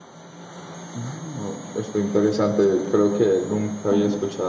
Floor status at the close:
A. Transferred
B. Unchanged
B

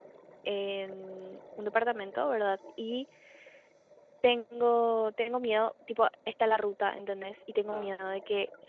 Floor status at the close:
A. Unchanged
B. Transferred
A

